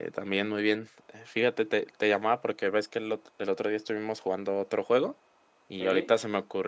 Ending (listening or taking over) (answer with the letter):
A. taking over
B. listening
B